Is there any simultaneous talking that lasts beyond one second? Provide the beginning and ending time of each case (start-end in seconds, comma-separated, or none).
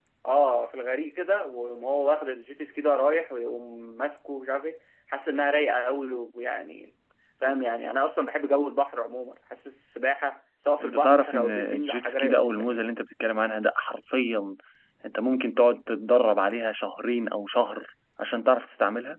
10.8-12.8